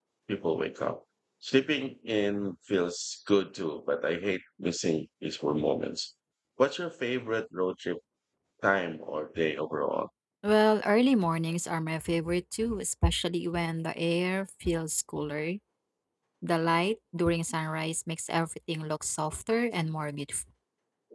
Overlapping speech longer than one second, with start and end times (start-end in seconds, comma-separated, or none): none